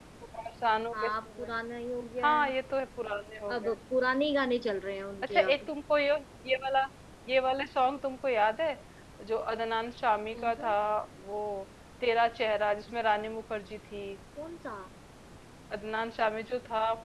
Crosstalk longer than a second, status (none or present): none